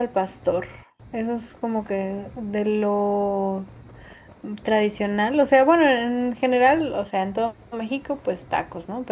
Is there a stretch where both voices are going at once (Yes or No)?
No